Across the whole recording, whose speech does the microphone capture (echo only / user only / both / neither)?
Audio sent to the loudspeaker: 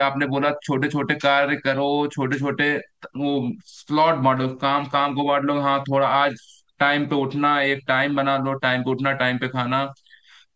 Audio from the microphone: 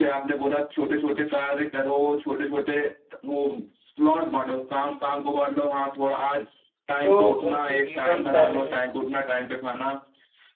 both